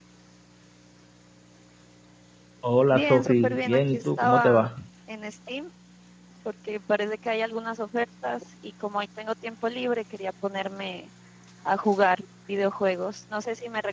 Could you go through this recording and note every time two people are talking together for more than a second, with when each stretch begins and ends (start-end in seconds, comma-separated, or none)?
2.9-4.6